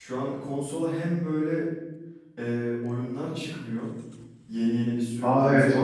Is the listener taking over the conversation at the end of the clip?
Yes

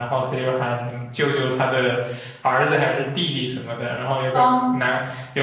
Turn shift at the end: No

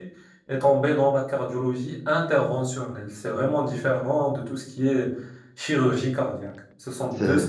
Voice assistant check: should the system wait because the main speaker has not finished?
Yes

